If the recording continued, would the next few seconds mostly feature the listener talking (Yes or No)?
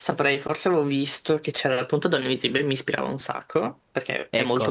Yes